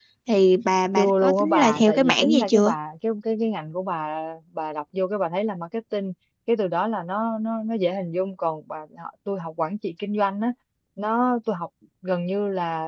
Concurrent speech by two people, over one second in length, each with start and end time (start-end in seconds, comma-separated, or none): 1.0-2.7